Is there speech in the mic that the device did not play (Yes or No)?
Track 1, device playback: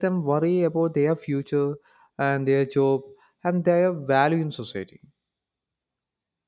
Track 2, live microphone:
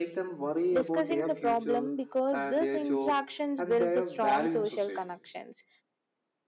Yes